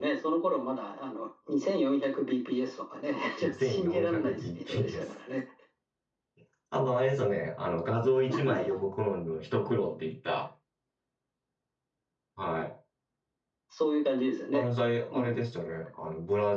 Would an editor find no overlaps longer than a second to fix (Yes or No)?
No